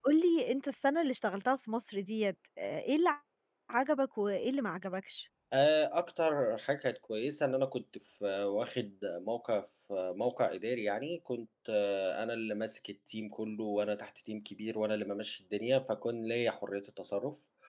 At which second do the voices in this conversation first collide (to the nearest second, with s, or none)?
none